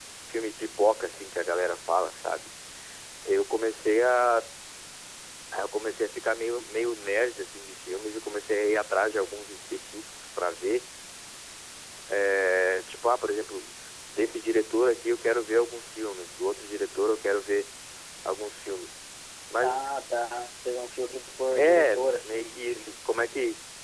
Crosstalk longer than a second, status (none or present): present